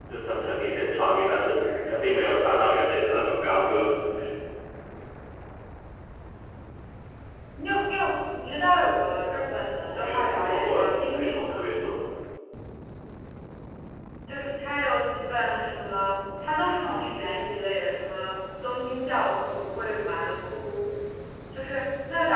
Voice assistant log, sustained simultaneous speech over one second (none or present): present